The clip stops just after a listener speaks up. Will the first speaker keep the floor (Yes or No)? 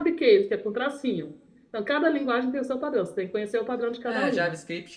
No